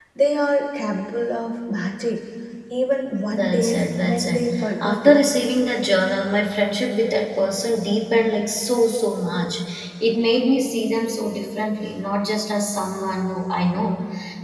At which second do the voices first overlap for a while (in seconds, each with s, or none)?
3.2 s